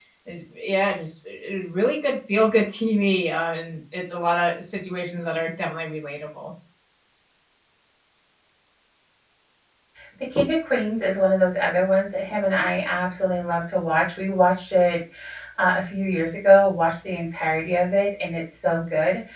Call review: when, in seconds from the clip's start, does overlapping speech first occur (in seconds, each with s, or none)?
none